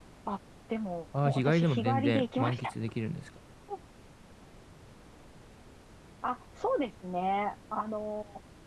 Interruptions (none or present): present